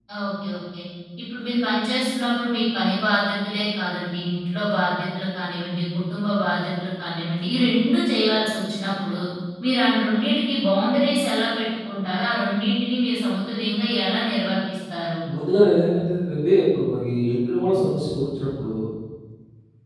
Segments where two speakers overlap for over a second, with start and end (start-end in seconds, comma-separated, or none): none